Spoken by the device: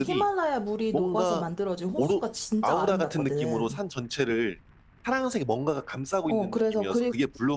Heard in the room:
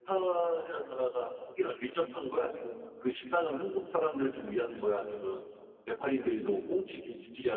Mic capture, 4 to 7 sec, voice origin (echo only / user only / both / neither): user only